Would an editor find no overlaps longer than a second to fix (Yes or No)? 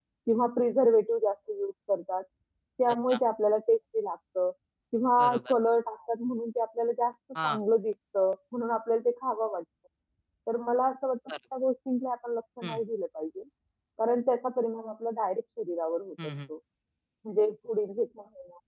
Yes